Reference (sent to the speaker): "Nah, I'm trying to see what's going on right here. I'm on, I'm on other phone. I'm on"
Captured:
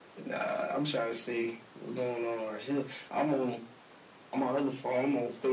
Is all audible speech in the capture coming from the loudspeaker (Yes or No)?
Yes